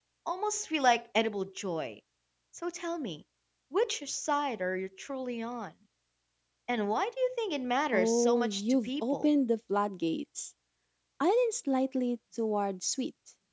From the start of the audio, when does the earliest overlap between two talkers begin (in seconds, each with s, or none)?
7.9 s